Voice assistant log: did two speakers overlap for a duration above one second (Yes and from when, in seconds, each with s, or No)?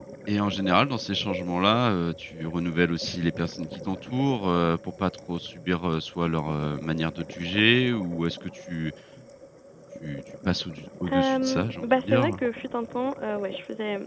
Yes, from 11.1 s